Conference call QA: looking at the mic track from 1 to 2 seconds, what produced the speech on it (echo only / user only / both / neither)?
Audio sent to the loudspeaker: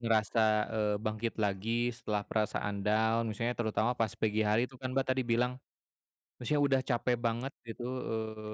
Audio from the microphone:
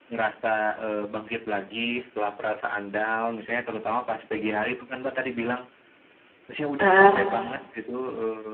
echo only